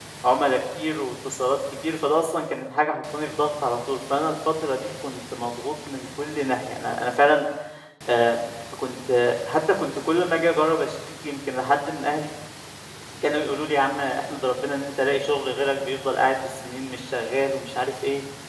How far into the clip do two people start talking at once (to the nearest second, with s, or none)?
none